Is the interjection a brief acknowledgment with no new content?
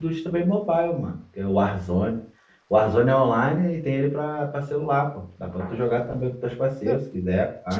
No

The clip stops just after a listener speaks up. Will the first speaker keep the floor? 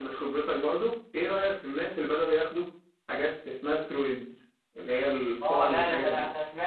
No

